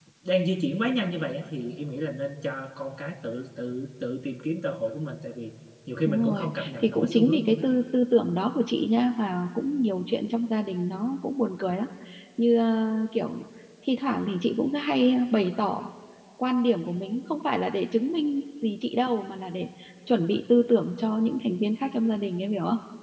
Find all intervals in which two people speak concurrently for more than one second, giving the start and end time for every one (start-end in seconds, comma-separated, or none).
6.0-7.6